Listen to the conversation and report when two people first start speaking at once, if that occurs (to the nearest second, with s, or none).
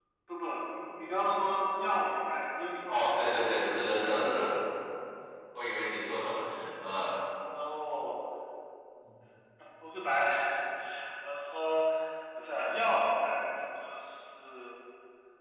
3 s